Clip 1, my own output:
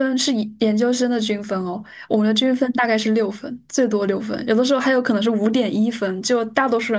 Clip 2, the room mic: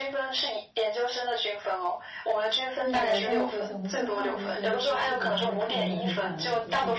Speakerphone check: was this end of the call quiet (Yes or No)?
No